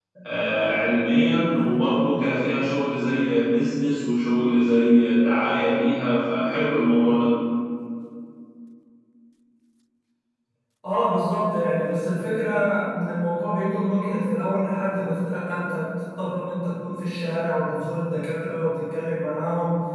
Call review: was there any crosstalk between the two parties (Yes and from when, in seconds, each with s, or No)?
No